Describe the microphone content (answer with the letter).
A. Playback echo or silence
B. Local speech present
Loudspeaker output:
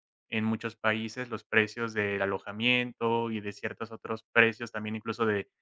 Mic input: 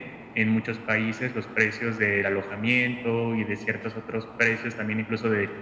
A